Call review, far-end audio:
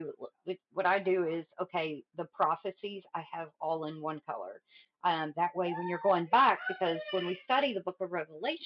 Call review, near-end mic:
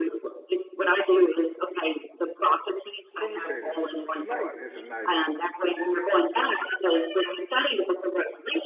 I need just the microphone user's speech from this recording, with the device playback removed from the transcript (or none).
let me say this. Tonight is a night of